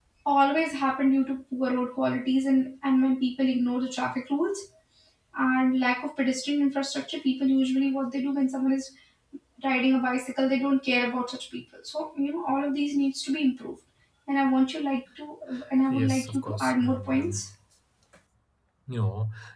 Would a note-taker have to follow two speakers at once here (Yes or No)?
Yes